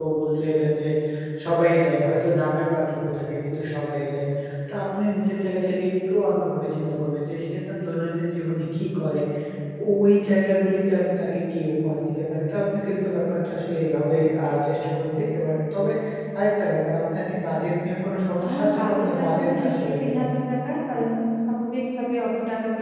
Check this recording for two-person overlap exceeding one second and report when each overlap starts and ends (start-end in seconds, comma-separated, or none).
18.5-20.2